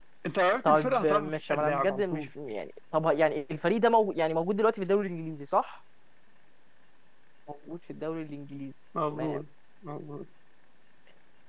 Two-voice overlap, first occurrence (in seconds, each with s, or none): 0.6 s